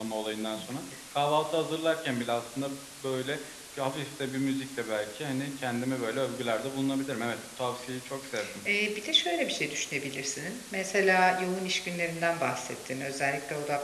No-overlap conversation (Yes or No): Yes